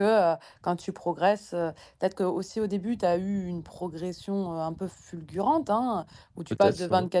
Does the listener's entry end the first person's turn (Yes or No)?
No